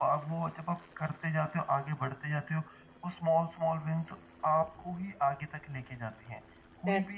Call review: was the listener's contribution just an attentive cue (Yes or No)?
Yes